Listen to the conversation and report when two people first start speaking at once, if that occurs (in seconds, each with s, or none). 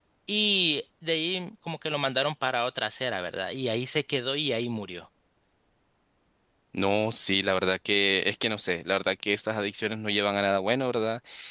none